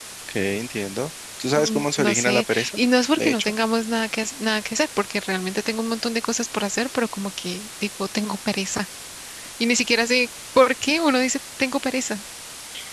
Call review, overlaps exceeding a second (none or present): present